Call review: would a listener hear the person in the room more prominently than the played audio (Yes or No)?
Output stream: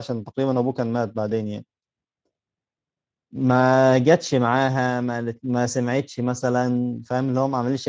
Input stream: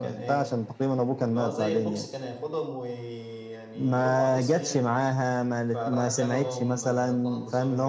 No